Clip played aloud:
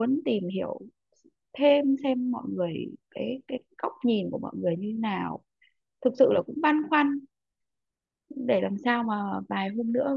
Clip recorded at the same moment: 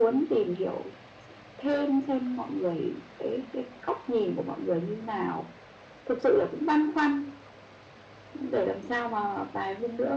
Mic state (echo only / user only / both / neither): echo only